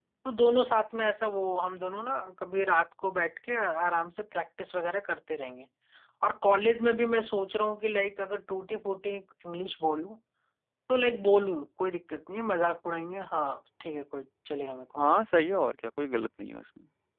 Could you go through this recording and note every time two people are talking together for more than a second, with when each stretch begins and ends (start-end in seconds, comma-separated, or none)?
none